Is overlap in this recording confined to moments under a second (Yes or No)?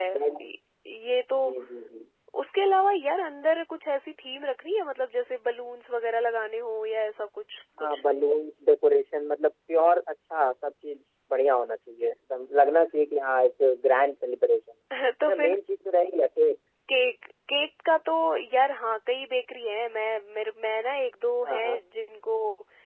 Yes